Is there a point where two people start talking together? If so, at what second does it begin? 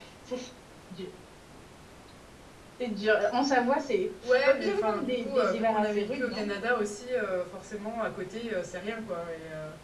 4.2 s

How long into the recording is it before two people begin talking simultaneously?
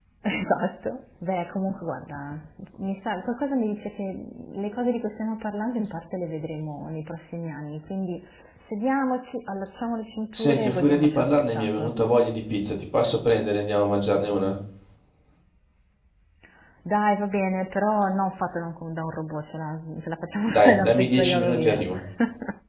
10.3 s

